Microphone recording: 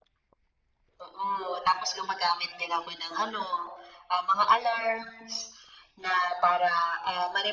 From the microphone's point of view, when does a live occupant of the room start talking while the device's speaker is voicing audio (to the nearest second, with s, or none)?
none